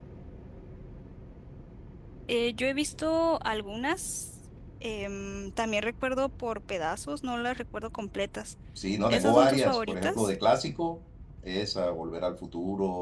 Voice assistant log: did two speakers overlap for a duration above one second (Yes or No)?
Yes